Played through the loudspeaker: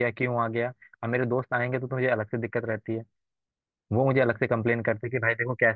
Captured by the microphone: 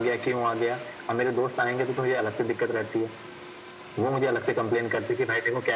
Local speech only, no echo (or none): none